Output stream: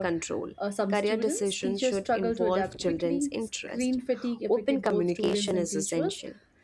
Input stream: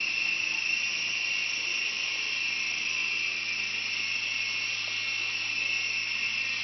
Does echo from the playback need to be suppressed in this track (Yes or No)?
No